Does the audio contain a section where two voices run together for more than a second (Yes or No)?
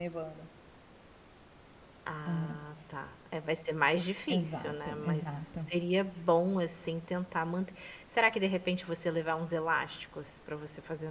Yes